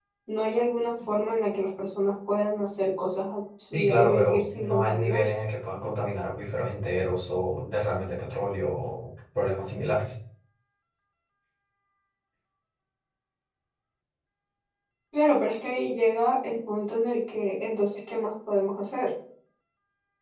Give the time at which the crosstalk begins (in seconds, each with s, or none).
3.7 s